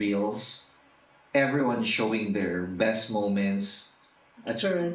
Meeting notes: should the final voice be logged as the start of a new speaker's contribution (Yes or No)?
No